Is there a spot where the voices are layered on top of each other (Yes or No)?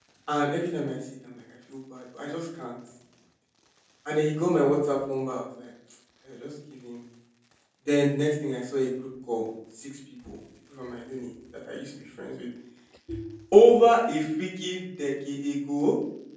No